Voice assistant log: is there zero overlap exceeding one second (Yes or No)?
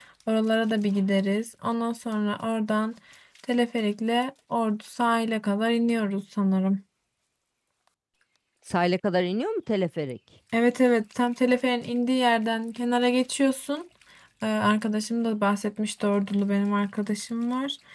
Yes